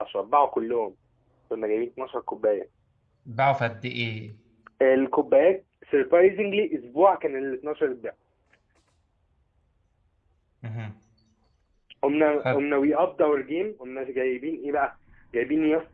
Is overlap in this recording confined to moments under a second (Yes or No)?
Yes